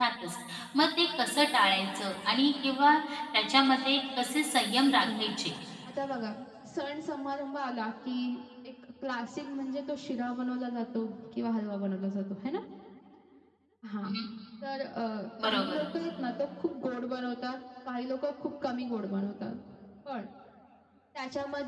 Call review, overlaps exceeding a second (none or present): none